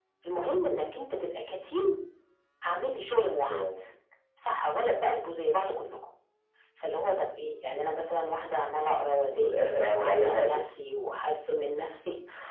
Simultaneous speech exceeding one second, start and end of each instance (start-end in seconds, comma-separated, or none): 9.3-10.6